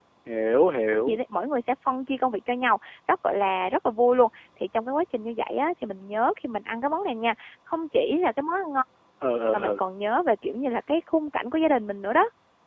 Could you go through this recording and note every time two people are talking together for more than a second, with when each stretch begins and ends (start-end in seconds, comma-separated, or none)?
none